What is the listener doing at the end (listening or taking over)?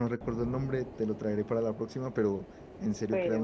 listening